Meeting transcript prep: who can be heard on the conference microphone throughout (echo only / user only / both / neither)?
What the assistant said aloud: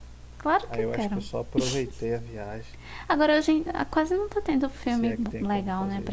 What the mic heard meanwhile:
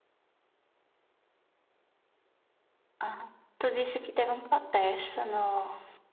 user only